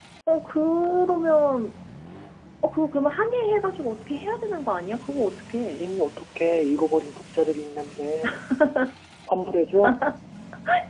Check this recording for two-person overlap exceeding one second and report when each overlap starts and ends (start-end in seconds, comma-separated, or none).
none